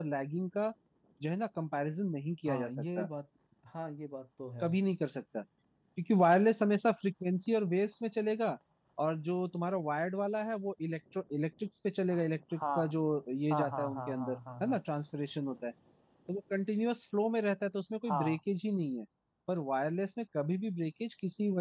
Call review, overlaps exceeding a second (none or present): present